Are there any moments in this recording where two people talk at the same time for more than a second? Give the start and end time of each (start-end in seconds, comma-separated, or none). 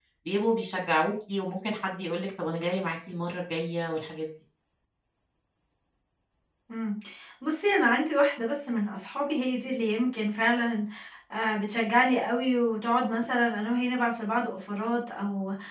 none